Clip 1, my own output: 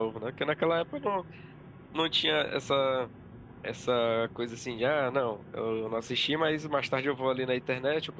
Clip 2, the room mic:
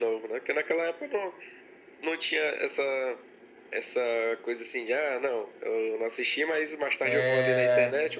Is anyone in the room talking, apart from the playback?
Yes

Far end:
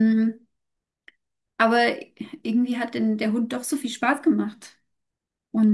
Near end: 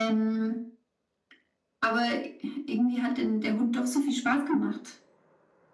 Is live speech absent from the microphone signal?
Yes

